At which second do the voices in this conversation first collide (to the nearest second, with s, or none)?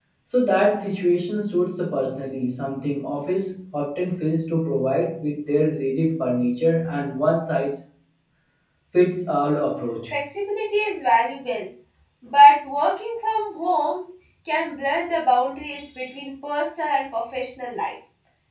none